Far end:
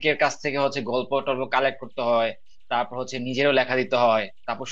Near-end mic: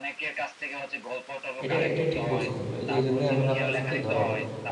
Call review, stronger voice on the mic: user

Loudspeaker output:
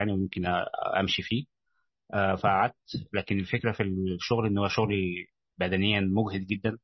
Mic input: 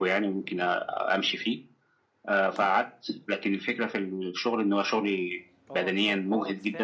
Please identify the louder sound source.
echo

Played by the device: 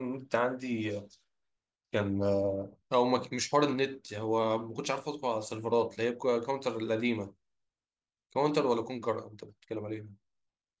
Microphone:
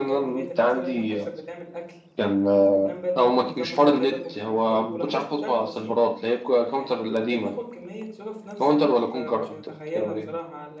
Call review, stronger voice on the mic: echo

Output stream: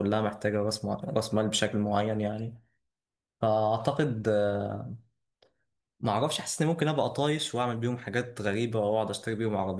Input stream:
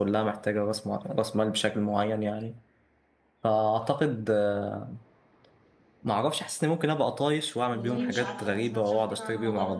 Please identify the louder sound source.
echo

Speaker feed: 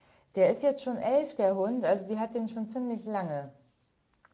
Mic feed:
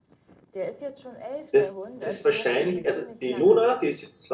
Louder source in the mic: user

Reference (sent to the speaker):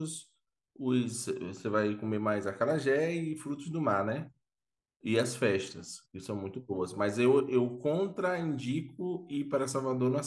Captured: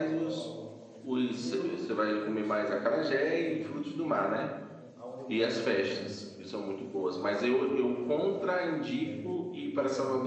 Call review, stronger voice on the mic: echo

